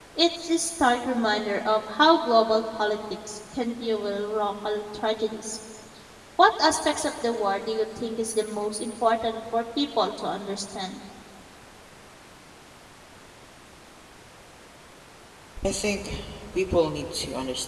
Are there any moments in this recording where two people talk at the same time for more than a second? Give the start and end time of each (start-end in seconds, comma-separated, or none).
none